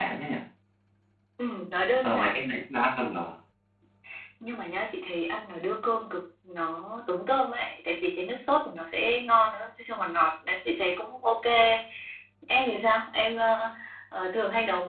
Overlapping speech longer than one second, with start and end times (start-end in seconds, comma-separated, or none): none